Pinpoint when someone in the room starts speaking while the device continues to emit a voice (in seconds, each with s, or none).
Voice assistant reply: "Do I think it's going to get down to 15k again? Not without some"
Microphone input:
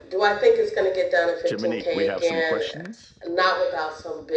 1.4 s